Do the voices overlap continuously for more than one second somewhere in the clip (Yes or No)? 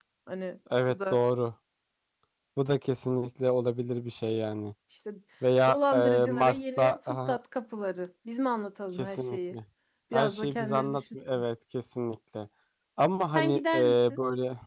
Yes